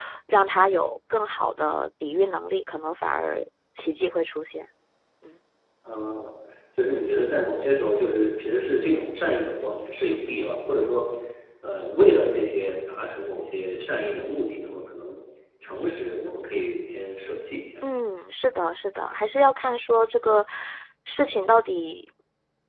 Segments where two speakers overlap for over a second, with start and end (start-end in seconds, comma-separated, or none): none